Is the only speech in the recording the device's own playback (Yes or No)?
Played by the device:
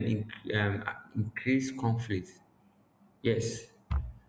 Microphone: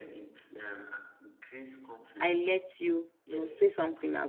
No